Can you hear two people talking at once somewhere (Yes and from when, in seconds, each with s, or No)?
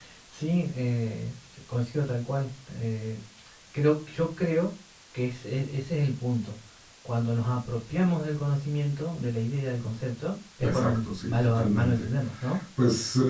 Yes, from 10.6 s